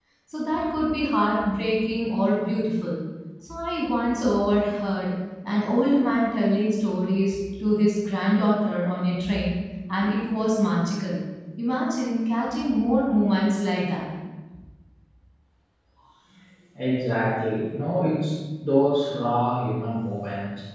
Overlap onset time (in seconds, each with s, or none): none